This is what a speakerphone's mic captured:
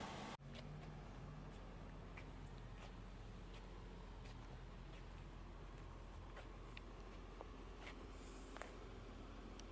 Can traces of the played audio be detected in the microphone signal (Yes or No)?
No